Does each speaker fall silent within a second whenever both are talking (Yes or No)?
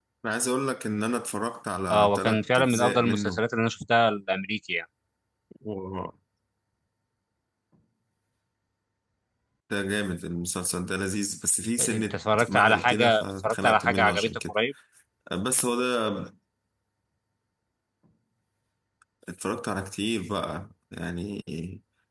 No